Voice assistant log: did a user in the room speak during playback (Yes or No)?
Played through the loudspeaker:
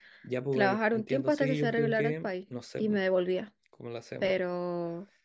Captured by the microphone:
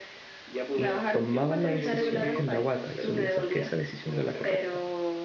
Yes